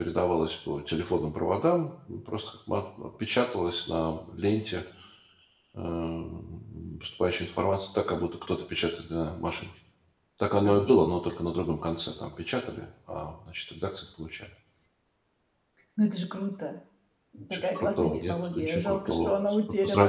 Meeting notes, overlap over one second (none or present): present